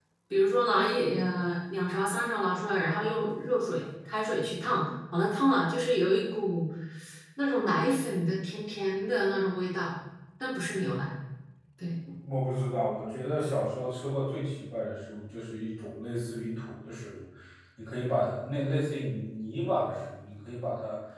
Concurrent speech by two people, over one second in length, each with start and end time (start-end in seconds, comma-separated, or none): none